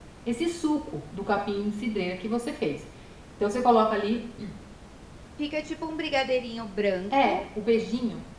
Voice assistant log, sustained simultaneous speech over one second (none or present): none